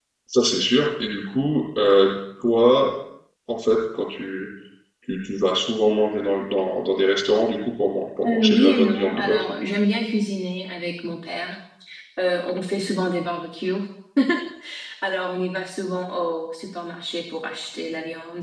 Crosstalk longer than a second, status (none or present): present